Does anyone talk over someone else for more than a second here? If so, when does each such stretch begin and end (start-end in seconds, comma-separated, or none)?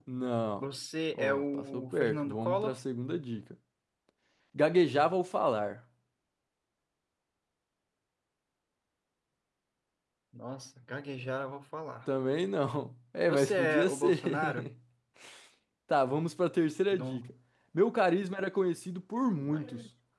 1.1-2.8, 13.3-14.7